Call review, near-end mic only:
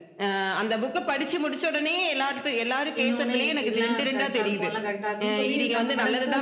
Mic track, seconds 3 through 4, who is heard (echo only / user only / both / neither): both